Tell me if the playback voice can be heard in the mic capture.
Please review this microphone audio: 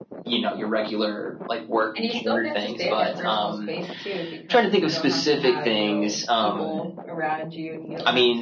Yes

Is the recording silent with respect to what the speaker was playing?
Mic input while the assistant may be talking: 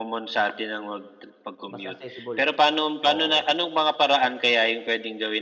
No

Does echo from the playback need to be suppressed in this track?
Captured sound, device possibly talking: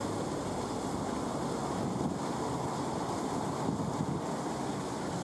No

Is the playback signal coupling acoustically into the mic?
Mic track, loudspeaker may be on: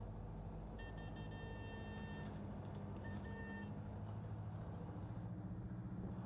No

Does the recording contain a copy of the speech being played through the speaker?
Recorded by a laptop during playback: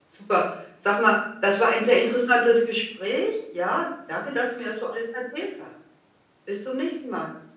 No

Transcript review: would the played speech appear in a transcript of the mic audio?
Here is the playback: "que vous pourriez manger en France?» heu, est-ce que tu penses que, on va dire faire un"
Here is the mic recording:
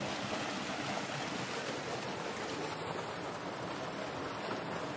No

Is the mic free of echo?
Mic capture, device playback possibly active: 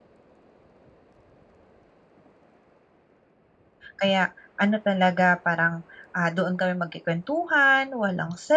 Yes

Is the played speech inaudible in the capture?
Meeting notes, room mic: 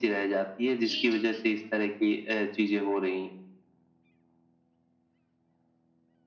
No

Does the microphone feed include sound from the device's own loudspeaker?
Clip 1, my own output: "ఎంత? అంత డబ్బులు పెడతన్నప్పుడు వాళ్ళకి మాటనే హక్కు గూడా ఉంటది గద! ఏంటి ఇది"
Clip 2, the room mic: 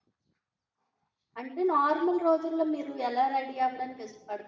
No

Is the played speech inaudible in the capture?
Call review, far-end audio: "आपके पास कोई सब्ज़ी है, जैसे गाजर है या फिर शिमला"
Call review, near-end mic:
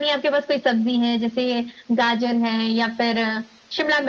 No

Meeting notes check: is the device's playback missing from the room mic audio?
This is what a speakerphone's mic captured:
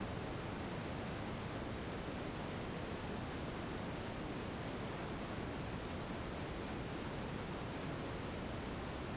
Yes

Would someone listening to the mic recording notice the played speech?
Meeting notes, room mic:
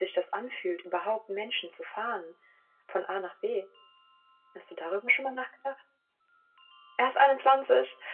Yes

